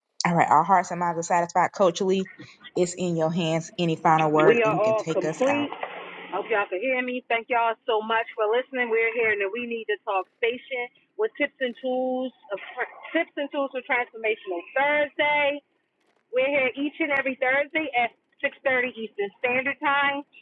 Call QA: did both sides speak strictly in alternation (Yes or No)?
No